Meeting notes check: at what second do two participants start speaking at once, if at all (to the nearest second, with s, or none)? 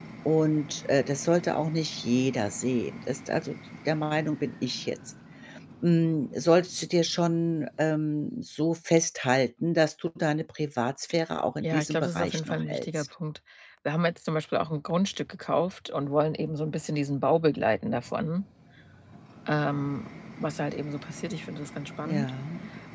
12 s